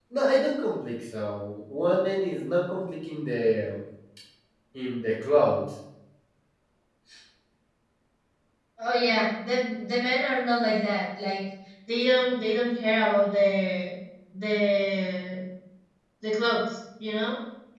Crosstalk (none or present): none